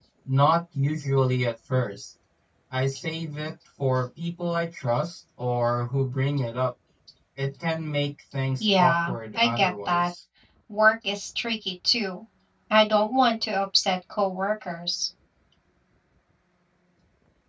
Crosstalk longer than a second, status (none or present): present